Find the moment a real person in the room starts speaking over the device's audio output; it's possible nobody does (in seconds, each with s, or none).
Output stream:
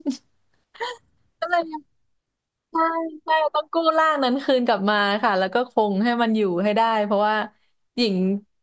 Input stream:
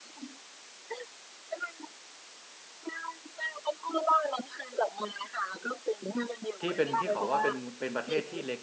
6.6 s